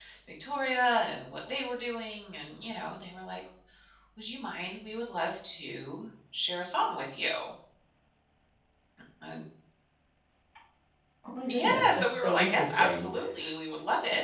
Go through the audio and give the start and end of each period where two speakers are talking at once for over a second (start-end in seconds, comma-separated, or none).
11.5-13.1